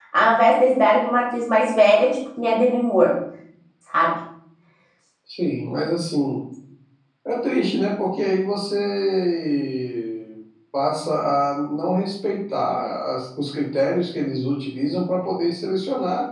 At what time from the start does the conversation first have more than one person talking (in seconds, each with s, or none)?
none